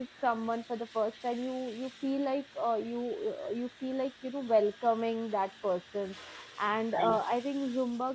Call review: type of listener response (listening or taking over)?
listening